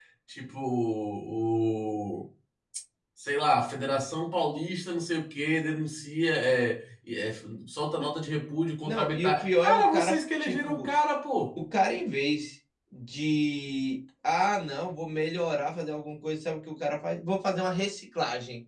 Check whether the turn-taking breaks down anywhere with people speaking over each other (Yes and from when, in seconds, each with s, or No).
Yes, from 8.8 s